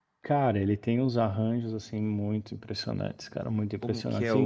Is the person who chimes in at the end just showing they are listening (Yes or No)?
No